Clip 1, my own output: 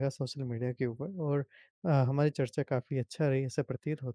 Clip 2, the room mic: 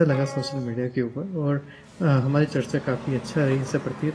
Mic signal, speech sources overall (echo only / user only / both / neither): echo only